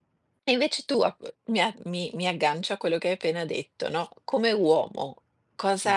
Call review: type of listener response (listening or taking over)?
listening